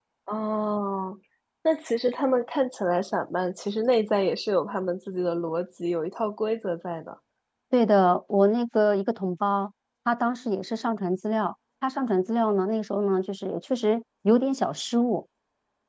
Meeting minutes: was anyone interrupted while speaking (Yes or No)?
No